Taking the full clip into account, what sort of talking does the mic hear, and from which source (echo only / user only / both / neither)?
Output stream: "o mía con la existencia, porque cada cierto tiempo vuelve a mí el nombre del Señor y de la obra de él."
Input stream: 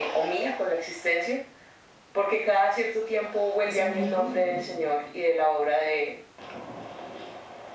both